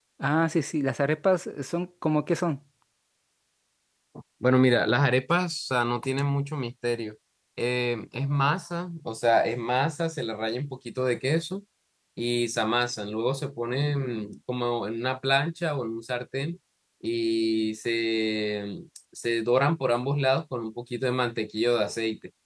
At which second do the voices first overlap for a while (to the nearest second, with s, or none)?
none